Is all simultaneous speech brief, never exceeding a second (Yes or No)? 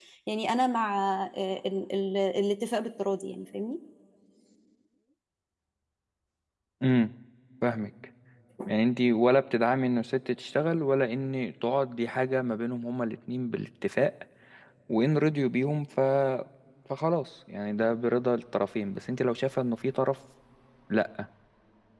Yes